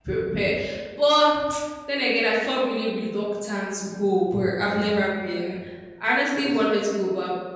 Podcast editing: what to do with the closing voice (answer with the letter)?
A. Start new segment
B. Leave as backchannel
B